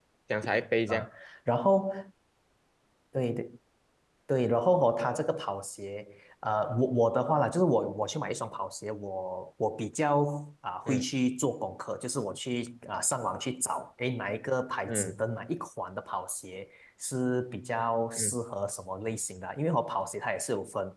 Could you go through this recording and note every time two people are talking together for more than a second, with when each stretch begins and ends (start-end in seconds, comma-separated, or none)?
none